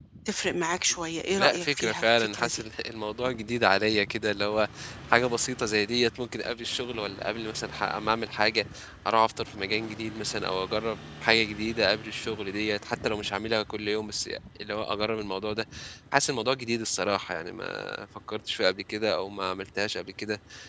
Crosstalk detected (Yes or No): Yes